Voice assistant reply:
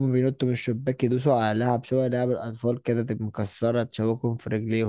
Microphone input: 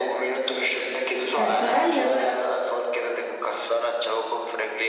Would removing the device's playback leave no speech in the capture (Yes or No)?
No